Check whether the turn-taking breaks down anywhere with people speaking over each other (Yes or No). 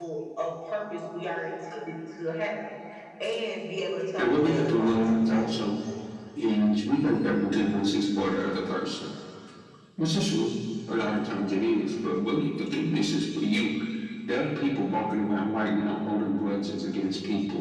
Yes